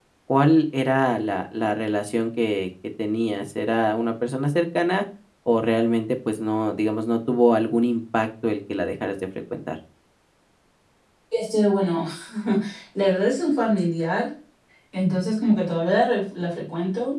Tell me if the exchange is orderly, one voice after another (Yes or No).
Yes